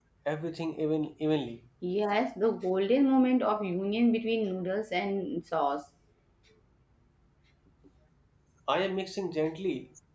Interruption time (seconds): none

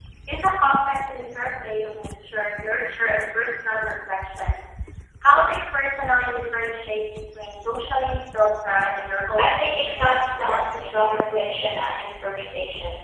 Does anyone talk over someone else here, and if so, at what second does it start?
9.4 s

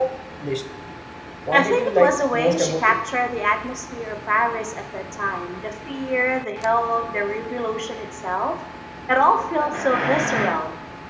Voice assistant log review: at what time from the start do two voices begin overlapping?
1.5 s

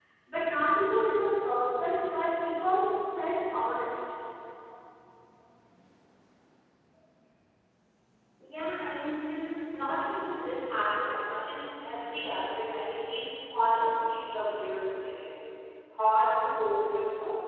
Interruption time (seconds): none

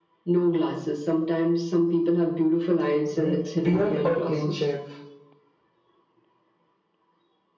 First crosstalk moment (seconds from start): 3.1 s

